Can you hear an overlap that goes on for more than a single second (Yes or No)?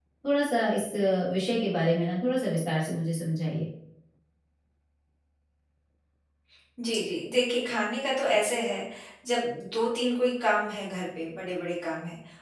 No